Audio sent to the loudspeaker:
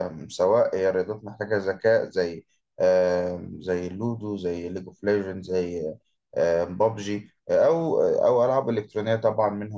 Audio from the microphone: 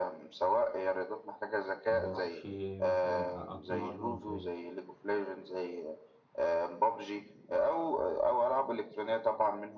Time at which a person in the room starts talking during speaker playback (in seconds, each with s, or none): 1.9 s